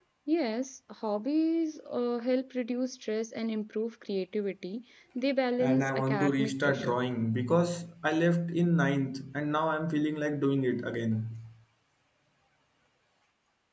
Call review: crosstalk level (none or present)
present